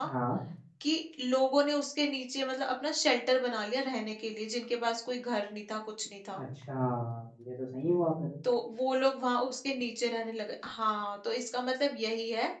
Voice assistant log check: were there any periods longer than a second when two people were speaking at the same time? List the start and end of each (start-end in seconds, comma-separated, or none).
none